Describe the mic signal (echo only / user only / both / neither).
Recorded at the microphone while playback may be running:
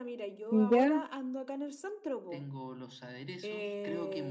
both